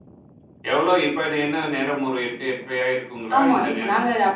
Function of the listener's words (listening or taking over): taking over